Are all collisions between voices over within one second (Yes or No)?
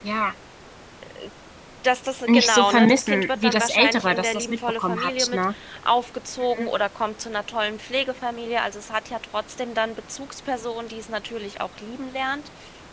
No